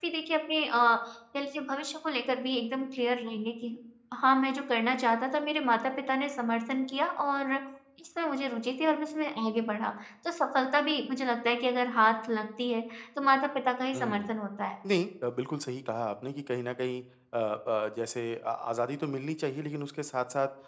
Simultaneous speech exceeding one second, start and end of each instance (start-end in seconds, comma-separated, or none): none